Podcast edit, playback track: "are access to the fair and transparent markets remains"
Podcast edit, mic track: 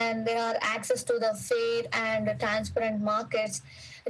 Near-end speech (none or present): none